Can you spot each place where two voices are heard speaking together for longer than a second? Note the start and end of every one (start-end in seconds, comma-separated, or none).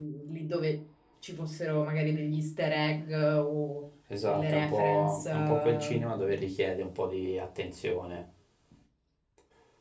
4.2-6.4